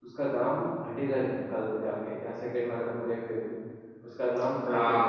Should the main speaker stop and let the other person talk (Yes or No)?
Yes